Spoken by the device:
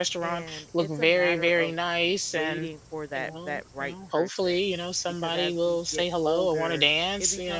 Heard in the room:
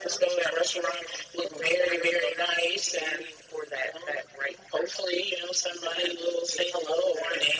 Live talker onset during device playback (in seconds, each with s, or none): none